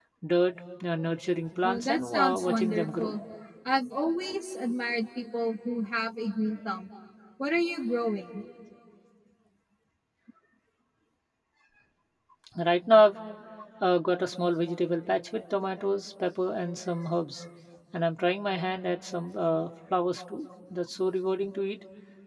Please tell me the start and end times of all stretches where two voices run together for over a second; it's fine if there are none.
1.6-3.1

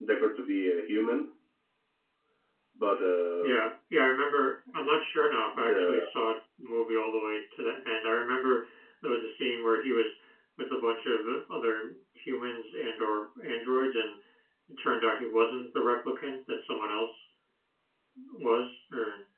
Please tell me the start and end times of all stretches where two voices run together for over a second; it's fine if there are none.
none

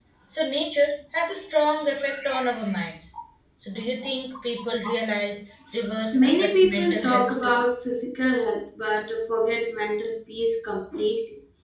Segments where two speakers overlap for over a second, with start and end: 6.1-7.6

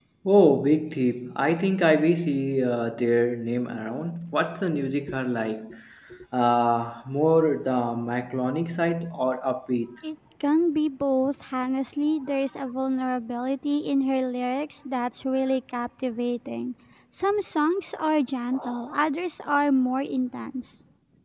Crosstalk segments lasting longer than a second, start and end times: none

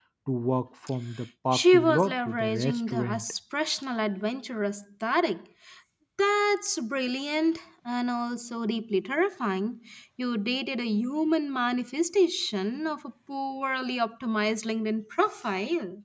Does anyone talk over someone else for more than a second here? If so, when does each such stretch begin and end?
1.5-3.2

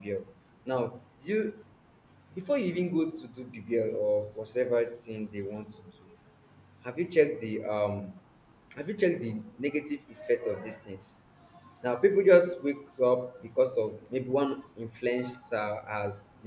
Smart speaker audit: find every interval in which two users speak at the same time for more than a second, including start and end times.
none

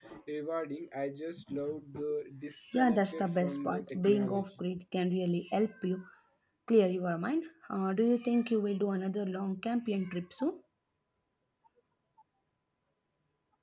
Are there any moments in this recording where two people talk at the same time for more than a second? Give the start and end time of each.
2.7-4.5

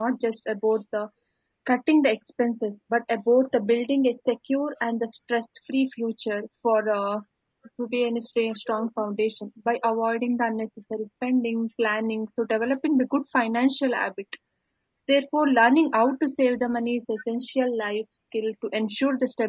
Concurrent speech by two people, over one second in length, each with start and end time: none

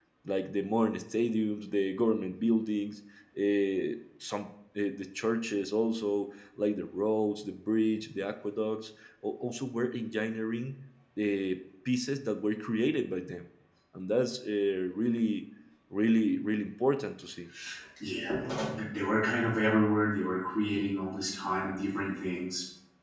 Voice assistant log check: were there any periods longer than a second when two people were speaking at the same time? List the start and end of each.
none

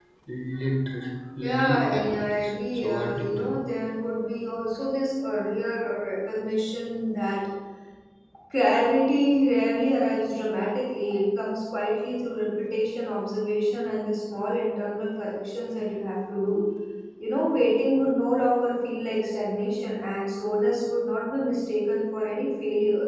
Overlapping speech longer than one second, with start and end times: 1.4-3.6

